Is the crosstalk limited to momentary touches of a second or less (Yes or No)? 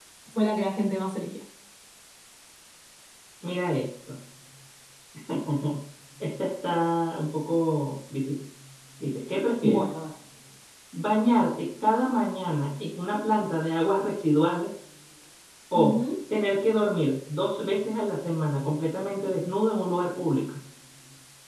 Yes